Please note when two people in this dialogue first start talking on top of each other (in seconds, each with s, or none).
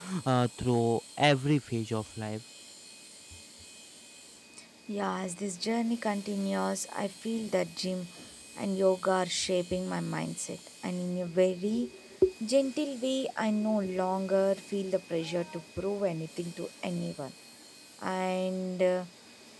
none